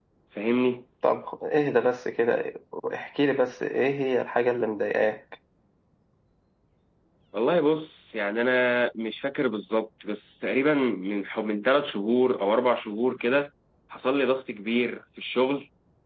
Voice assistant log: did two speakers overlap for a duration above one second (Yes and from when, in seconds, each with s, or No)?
No